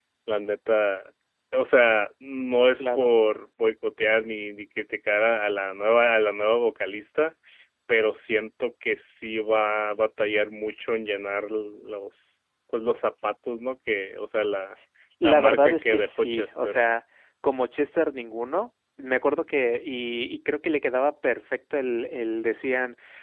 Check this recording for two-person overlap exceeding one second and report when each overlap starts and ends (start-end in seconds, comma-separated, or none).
15.2-16.8